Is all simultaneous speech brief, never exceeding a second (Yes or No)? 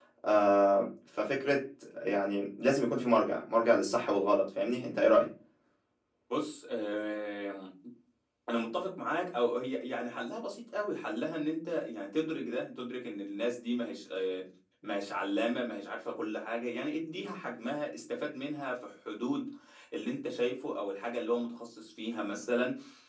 Yes